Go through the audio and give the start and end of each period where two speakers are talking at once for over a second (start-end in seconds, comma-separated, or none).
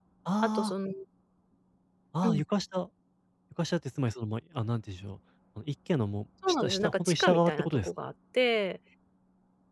6.6-7.9